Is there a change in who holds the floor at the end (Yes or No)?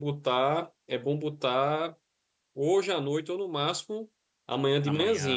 No